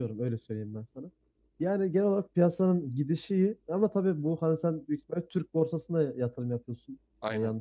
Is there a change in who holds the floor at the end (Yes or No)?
No